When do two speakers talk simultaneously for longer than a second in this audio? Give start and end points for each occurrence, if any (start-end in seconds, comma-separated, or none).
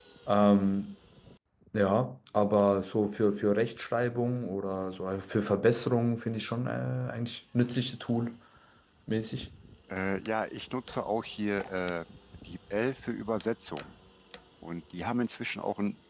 none